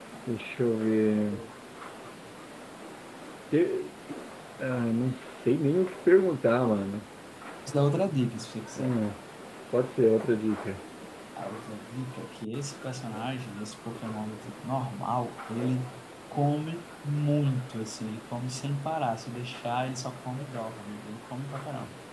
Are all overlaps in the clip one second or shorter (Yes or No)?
Yes